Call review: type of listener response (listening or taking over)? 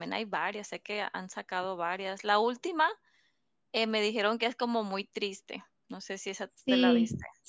taking over